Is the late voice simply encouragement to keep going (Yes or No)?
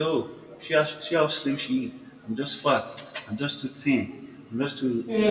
Yes